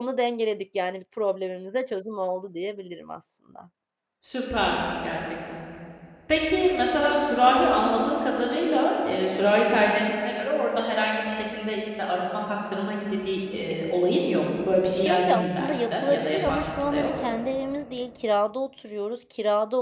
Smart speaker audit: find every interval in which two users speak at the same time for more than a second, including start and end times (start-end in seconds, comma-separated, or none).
14.9-17.1